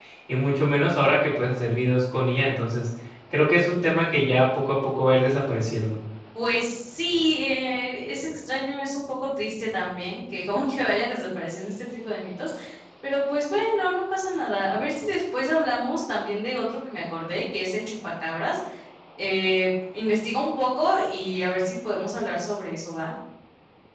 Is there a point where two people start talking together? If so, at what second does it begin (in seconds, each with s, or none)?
none